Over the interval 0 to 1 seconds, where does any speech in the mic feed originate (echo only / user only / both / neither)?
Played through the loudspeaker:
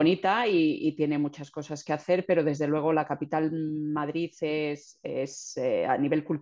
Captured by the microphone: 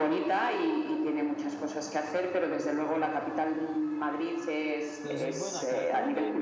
echo only